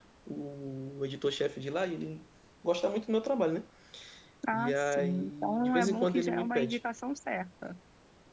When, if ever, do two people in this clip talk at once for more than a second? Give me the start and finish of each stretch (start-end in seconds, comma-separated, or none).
4.5-6.8